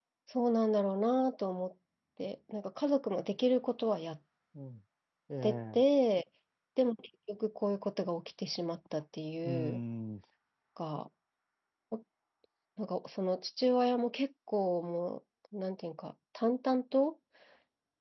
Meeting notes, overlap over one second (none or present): none